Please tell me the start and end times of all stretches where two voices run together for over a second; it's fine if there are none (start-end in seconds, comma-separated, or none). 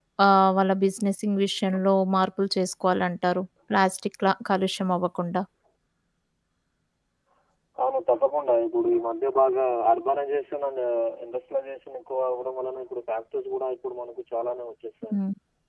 none